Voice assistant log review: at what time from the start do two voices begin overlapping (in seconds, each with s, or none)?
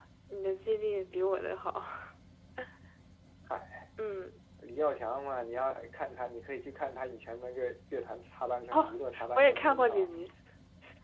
8.7 s